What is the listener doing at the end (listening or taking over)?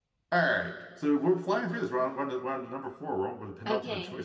taking over